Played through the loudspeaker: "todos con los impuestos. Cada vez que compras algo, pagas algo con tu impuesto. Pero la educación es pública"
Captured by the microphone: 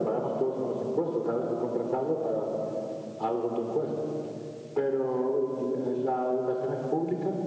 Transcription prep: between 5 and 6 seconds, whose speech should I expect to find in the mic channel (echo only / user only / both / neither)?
echo only